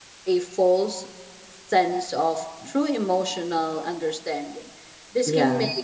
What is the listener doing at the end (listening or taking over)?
listening